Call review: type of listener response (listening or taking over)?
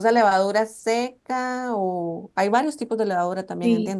taking over